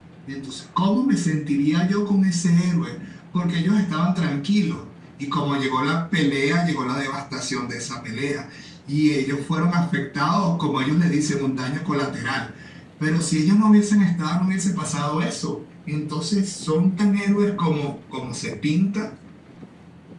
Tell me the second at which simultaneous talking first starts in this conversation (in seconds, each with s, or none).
none